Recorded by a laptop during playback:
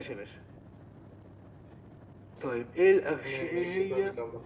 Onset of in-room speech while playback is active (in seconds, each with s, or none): 3.1 s